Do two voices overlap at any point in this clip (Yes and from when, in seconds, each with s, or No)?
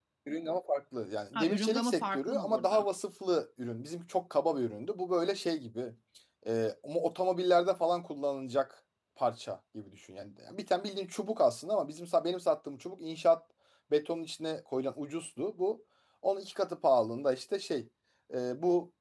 Yes, from 1.4 s